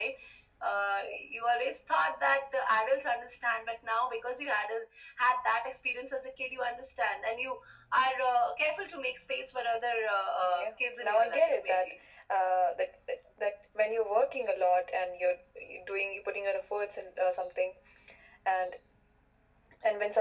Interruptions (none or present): present